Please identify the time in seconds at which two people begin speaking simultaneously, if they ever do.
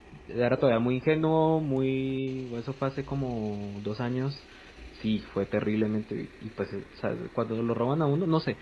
none

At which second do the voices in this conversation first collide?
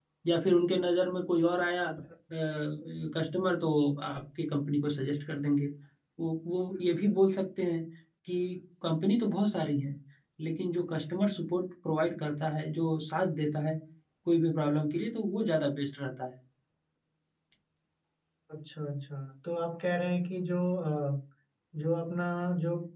none

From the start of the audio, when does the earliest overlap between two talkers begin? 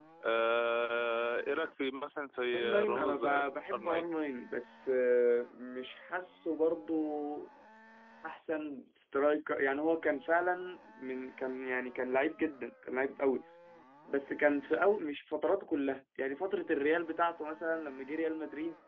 2.5 s

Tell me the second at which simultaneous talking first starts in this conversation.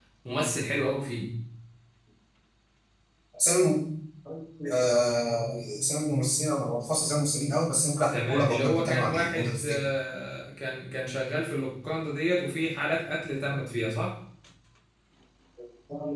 8.0 s

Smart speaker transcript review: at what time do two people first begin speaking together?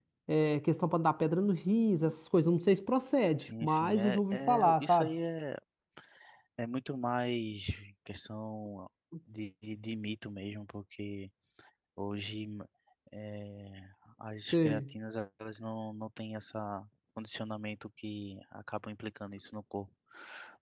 3.4 s

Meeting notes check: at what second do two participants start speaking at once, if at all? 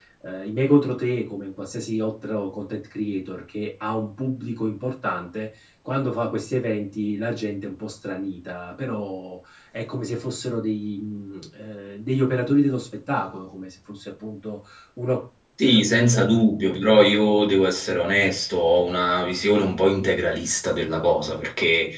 none

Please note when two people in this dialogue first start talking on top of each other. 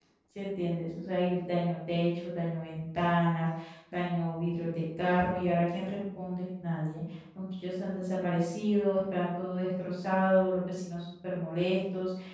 none

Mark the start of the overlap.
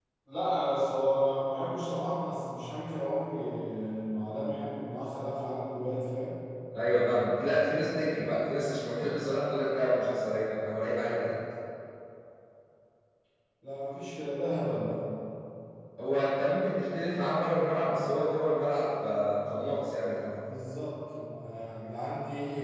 none

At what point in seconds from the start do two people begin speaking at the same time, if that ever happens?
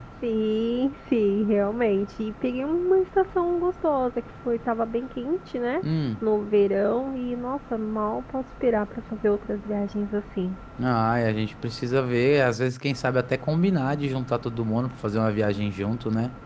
none

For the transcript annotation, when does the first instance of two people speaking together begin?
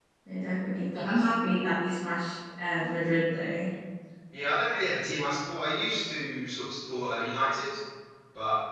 none

